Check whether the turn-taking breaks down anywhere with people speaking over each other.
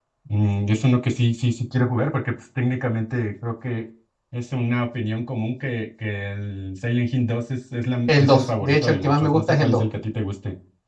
Yes, from 8.1 s

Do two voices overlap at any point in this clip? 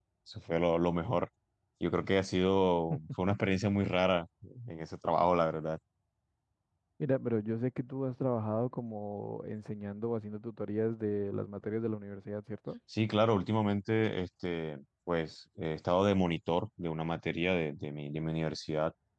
No

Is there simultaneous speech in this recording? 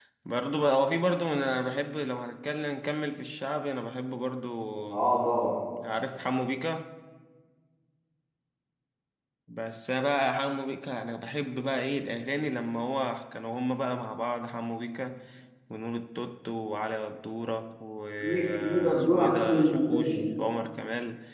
Yes, from 18.2 s

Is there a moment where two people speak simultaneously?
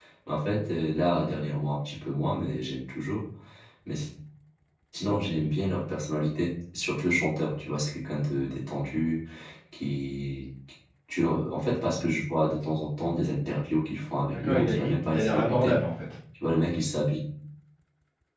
Yes, from 14.3 s

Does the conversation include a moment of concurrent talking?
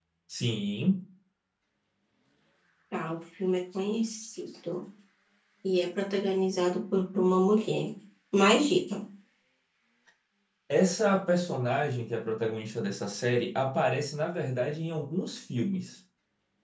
No

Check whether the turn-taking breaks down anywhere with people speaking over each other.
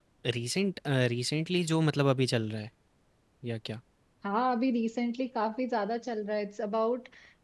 No

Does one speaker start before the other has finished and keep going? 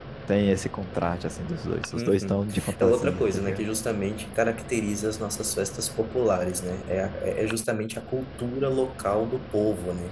Yes, from 1.9 s

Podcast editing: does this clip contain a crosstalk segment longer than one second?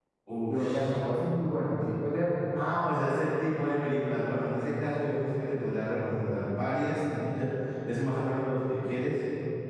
No

